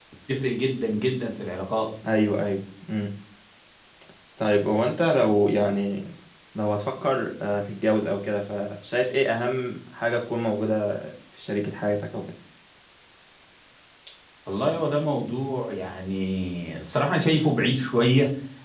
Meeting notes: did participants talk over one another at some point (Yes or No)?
No